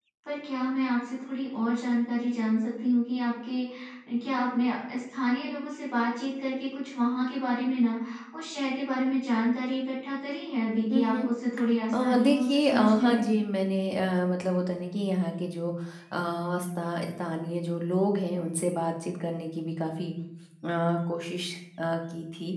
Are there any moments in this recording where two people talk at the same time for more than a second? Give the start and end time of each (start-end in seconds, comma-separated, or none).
11.9-13.2